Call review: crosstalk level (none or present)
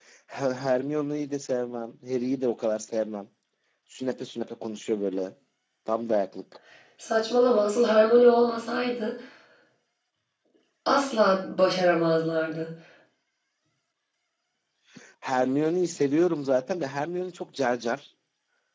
none